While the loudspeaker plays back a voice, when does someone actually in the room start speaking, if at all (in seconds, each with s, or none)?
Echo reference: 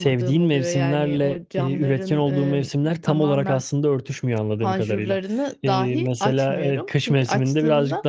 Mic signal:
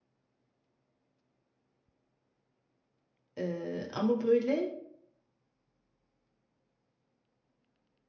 3.4 s